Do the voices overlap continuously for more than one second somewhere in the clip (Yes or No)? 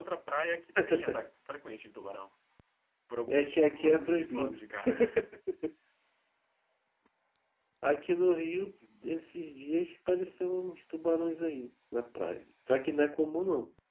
Yes